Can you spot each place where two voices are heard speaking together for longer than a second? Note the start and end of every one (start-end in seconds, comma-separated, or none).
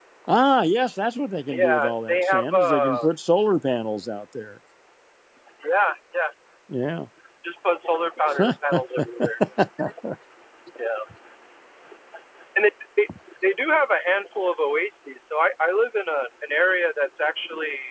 1.5-3.1